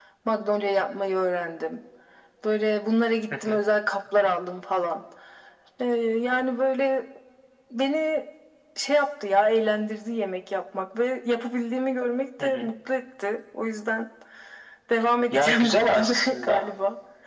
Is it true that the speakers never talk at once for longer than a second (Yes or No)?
No